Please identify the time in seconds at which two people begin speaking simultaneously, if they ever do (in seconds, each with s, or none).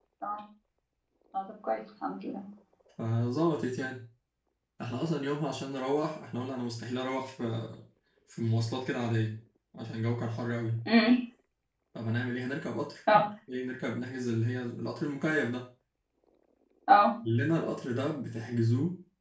none